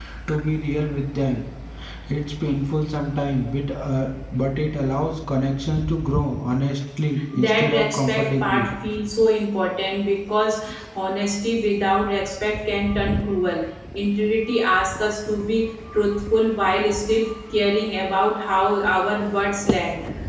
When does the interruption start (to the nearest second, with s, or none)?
7 s